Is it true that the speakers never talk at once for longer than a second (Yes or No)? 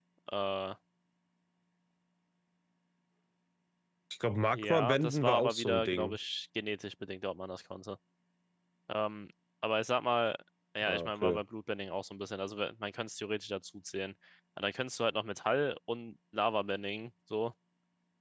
No